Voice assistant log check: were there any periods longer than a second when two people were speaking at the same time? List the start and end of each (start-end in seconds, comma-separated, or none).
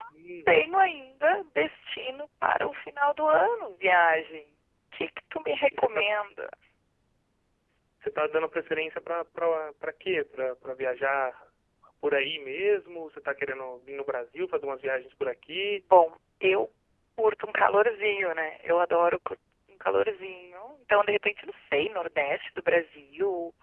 none